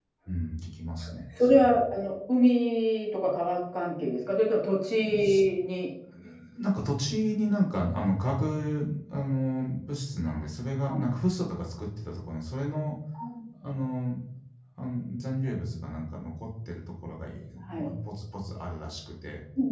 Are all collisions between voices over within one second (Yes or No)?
Yes